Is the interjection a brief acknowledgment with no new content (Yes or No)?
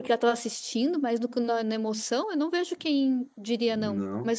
No